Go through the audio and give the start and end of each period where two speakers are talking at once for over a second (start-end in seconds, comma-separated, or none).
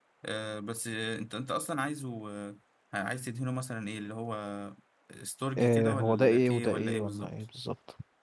5.6-7.3